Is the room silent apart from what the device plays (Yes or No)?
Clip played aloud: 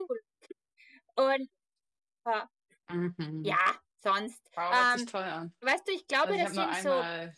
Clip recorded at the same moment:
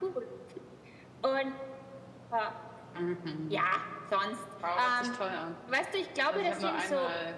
Yes